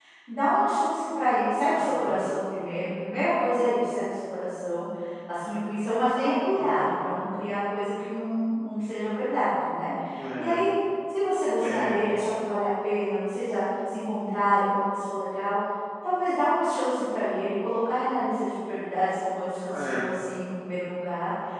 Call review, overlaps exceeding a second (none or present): none